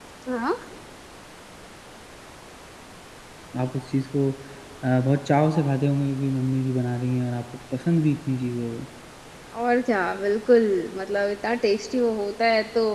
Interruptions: none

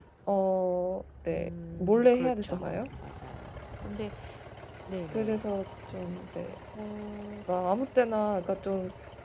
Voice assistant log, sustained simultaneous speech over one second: present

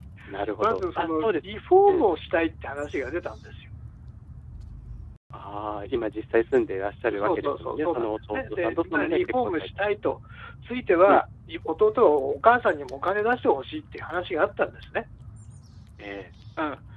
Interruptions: present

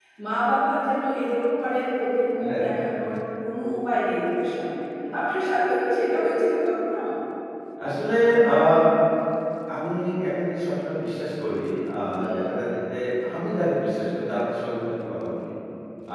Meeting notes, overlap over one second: none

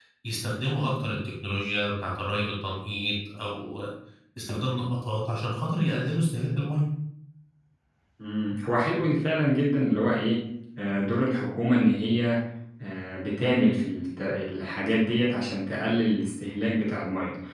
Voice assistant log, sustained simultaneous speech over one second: none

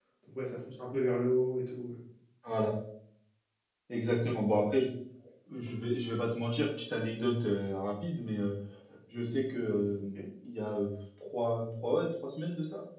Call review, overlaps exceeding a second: none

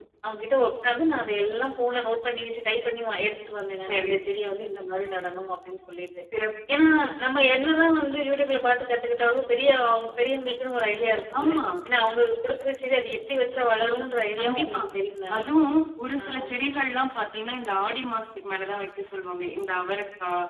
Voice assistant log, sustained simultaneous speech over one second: none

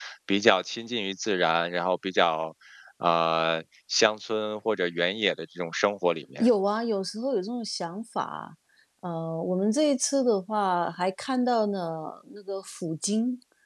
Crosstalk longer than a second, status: none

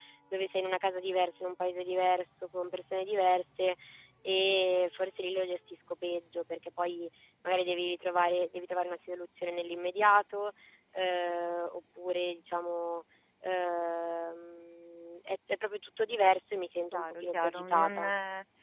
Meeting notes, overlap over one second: present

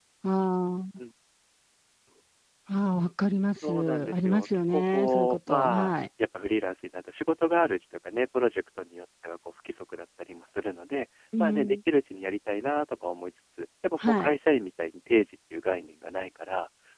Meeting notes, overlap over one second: present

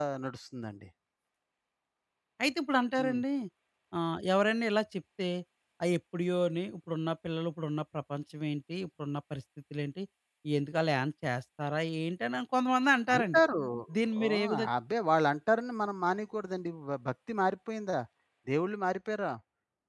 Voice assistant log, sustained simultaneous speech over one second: none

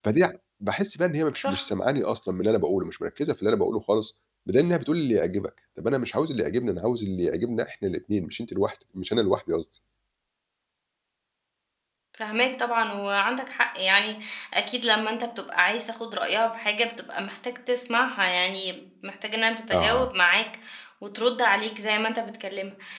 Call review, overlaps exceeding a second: none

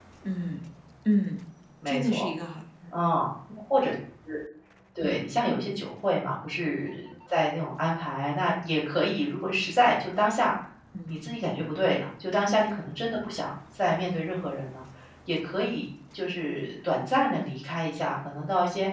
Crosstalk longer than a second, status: none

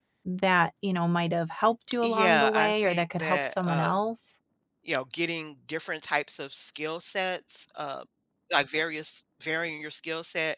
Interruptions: present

